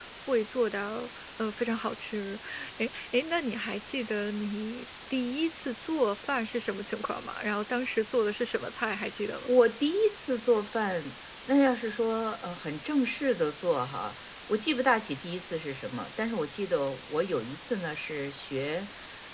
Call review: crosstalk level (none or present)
none